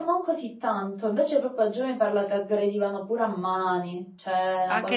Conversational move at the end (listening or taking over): taking over